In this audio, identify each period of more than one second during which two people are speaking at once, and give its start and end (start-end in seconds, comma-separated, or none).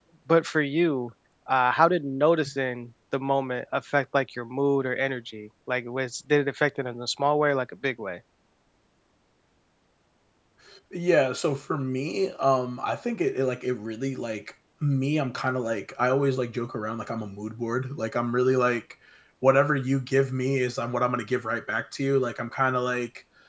none